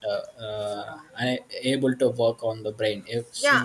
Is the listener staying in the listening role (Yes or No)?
No